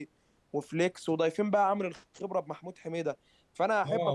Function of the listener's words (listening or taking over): taking over